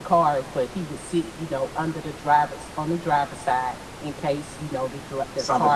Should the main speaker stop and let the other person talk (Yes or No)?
Yes